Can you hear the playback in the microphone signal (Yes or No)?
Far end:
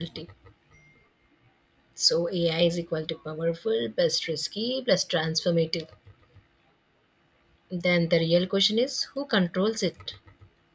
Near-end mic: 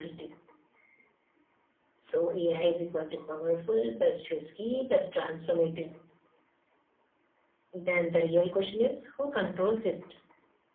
Yes